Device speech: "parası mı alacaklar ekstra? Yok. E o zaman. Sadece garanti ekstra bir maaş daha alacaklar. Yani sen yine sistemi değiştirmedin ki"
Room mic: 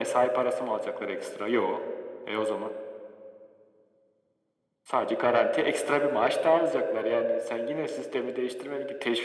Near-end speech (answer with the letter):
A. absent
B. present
A